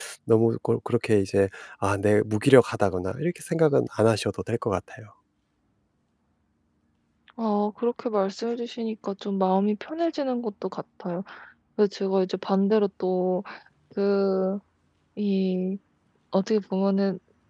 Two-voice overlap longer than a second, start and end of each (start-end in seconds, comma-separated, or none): none